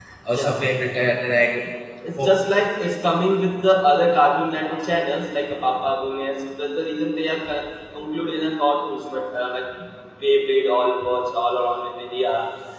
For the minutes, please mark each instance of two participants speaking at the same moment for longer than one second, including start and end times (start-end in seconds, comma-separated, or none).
none